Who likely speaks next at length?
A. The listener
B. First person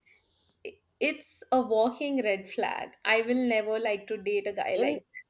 A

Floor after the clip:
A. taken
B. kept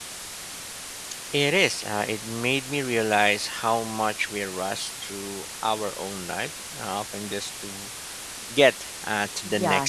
A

